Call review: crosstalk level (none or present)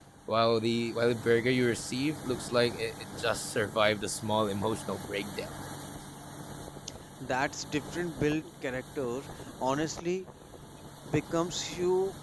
none